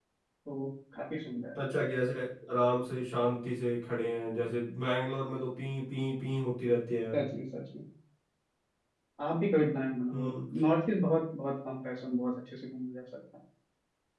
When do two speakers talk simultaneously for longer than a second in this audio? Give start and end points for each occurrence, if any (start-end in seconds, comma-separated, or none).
none